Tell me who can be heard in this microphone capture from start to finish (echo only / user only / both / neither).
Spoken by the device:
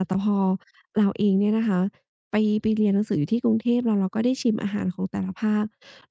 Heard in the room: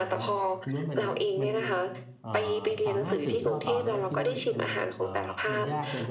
both